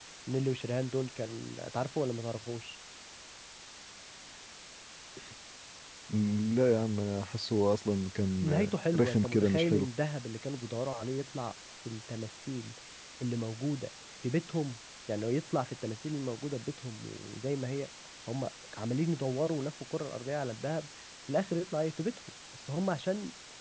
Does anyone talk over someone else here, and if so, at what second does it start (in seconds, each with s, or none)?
8.4 s